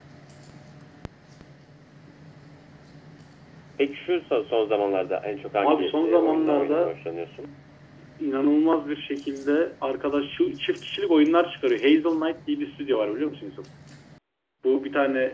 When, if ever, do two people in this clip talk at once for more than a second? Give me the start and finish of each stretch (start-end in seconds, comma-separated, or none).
5.6-6.9